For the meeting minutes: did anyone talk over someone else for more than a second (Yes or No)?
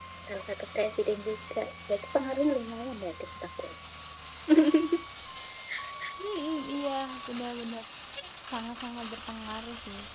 No